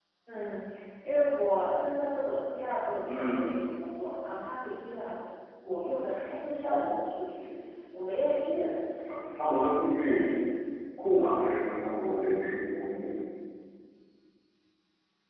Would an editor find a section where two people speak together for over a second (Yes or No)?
No